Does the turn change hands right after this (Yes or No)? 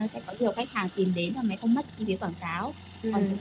No